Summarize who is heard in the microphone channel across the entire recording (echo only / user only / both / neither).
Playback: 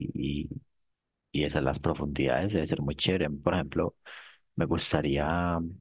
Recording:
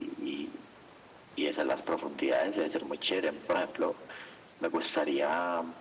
echo only